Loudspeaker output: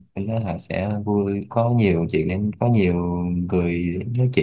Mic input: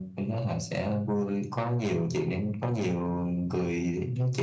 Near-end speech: none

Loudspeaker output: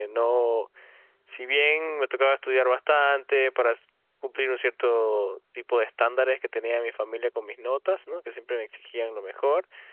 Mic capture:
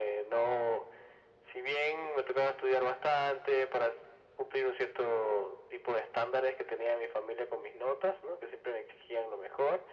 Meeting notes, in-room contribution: none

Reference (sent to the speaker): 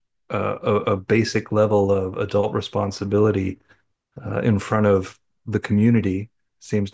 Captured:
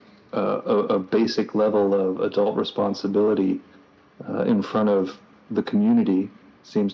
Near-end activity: none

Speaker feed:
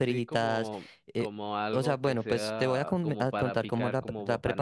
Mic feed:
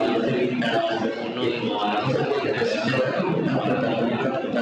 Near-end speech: present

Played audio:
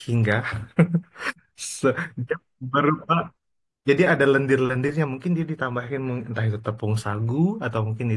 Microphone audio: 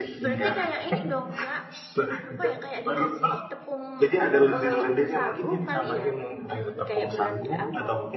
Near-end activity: present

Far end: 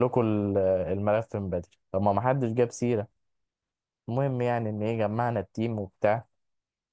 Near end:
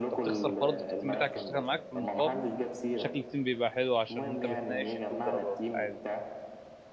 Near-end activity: present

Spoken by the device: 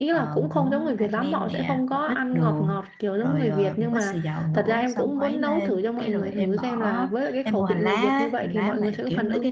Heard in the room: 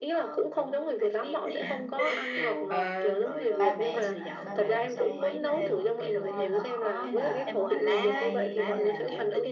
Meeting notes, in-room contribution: present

